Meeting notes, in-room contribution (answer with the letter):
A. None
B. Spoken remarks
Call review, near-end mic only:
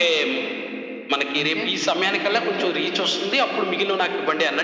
B